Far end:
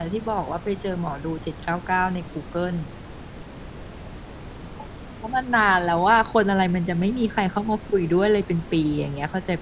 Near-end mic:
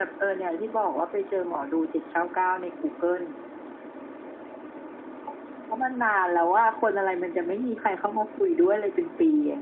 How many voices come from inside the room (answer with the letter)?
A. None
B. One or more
A